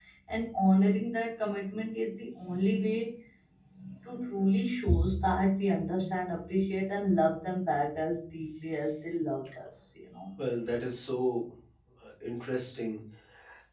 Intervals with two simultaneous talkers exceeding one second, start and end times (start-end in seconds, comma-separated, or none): none